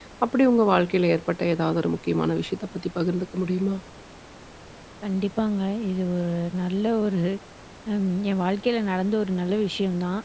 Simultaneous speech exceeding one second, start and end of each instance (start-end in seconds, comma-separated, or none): none